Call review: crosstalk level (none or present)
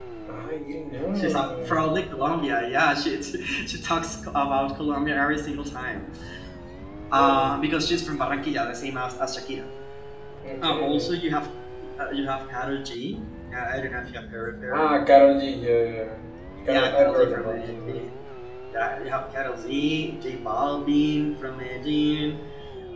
present